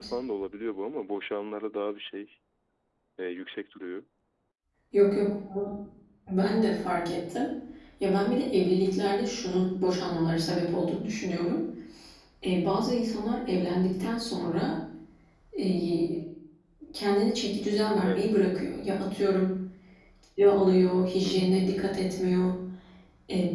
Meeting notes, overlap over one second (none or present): none